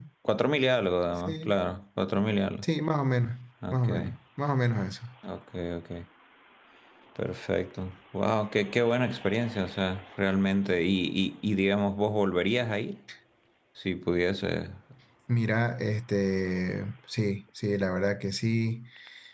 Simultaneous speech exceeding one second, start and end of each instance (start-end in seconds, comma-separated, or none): none